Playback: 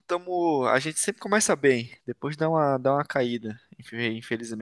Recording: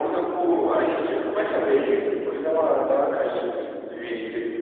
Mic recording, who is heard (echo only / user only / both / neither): echo only